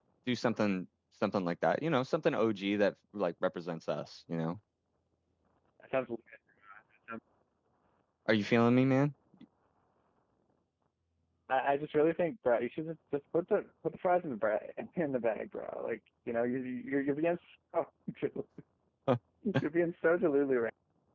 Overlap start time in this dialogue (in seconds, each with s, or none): none